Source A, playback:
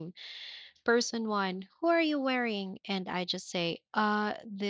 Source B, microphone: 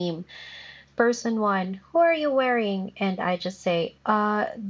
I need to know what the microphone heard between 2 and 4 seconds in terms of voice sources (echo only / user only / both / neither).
echo only